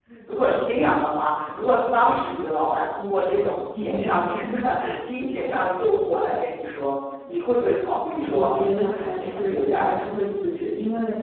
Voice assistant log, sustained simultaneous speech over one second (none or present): present